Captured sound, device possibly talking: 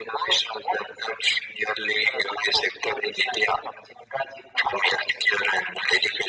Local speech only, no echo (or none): none